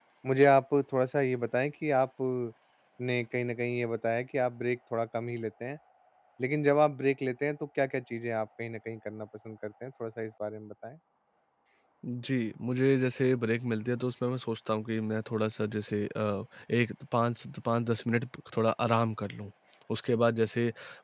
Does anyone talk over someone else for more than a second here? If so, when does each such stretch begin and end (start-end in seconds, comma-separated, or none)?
none